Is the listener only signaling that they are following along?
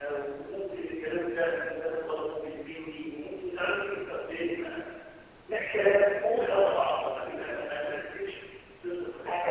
No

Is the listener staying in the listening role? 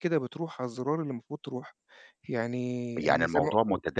No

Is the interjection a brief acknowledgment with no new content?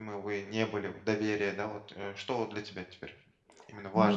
No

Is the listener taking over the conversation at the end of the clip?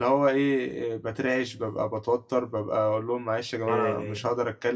No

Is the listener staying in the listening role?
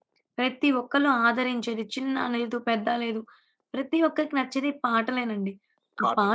Yes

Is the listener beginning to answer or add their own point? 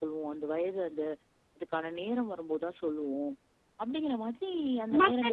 Yes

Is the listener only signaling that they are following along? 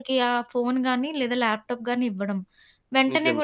Yes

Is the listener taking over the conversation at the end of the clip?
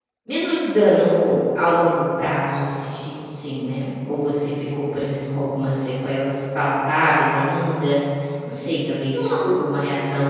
No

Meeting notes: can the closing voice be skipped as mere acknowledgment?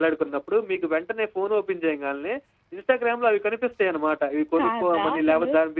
Yes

